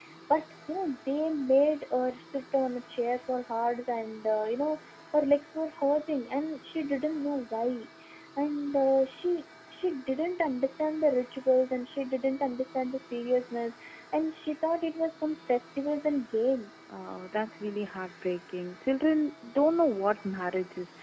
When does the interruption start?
none

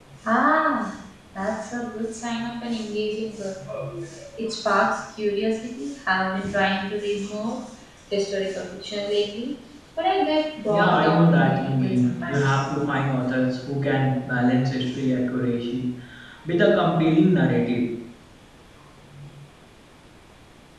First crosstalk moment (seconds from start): 10.7 s

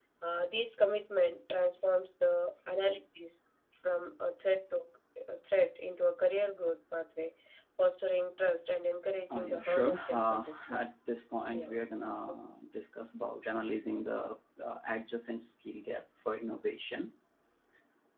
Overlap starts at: 9.3 s

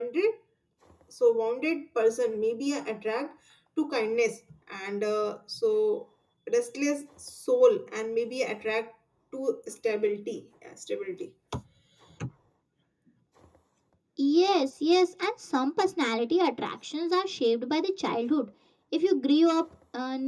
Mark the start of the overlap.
none

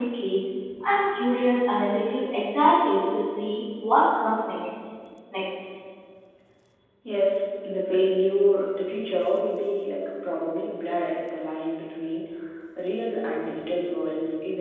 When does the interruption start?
none

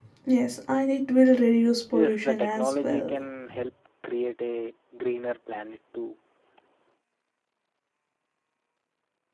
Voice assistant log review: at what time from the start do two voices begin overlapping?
1.9 s

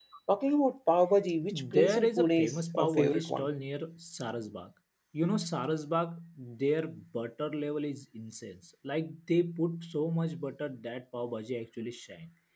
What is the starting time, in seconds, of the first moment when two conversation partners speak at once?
1.5 s

